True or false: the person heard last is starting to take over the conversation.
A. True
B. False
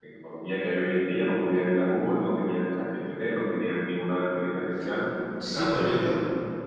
A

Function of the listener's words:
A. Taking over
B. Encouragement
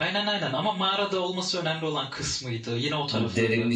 A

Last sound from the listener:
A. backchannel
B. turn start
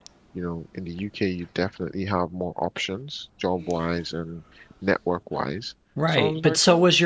B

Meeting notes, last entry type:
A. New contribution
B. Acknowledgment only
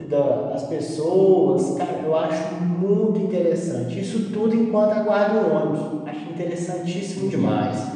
A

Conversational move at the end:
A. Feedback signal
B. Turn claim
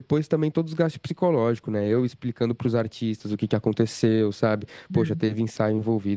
A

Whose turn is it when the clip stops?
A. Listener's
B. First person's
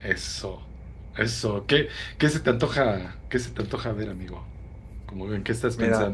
A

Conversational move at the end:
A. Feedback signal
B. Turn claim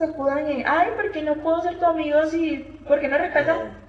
A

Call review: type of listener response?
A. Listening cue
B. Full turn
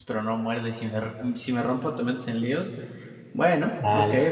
B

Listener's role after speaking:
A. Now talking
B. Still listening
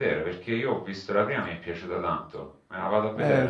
A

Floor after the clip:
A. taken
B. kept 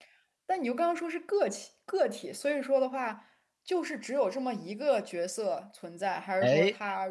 B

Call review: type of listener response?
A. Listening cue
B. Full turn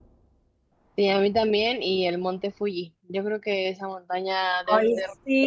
B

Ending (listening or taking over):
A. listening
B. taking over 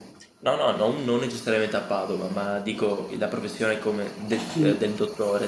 A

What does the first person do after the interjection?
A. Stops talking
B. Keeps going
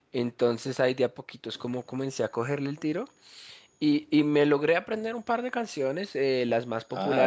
B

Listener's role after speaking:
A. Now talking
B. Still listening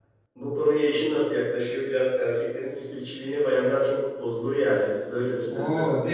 A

